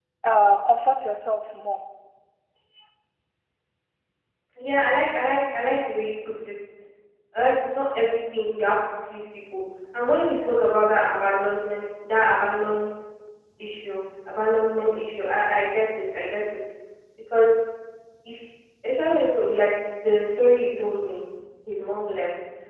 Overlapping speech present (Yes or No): No